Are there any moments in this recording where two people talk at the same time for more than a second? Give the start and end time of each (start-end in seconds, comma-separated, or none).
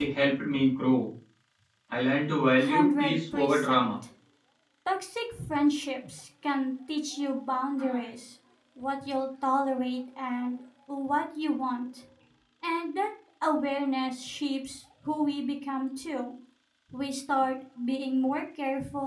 2.6-3.9